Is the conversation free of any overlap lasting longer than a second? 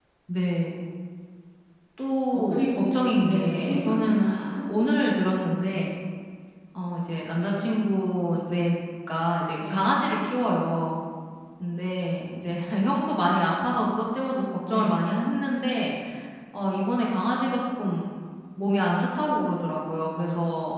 No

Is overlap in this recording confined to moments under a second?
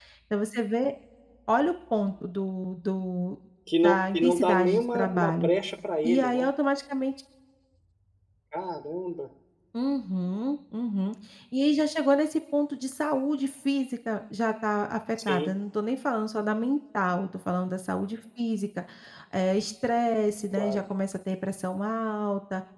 No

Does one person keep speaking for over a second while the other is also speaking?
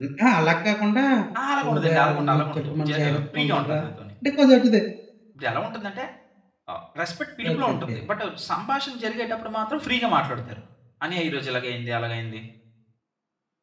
Yes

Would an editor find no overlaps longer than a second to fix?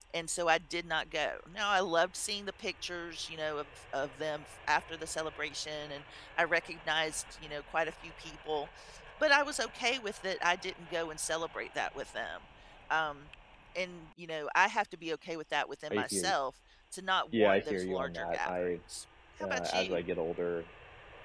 No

